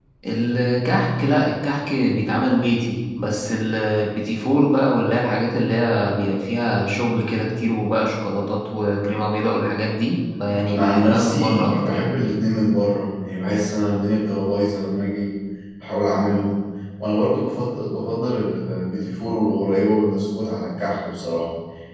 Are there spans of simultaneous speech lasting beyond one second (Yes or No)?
Yes